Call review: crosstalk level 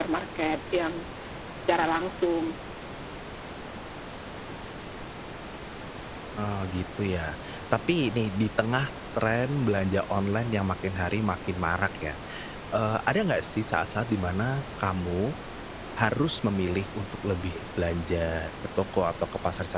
none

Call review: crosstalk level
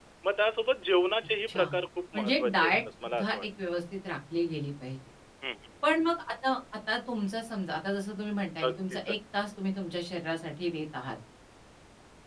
present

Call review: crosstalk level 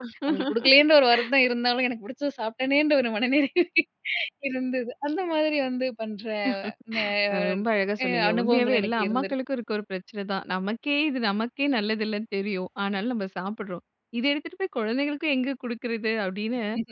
present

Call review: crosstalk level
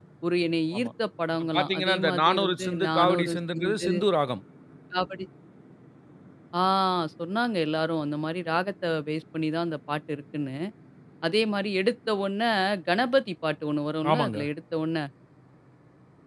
present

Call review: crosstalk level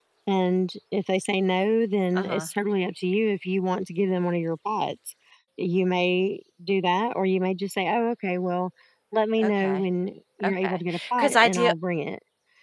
present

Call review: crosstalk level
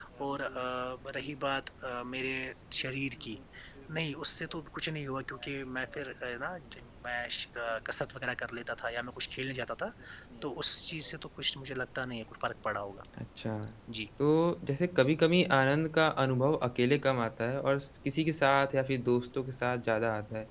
none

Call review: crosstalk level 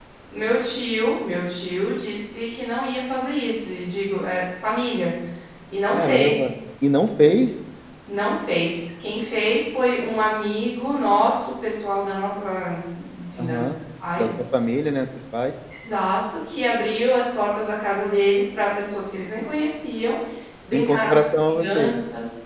present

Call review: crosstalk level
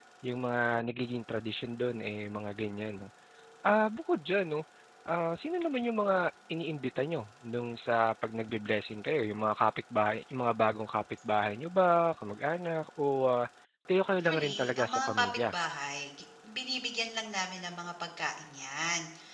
present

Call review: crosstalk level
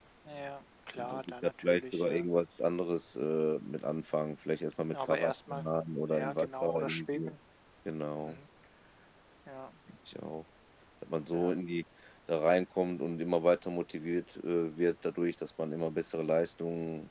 present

